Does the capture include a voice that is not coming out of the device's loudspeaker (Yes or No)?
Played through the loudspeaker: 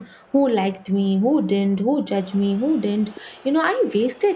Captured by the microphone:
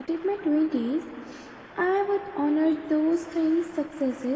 Yes